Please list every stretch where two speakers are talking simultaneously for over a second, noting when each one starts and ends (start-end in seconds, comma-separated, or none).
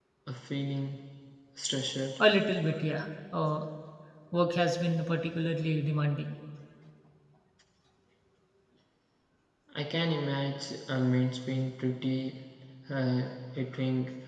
none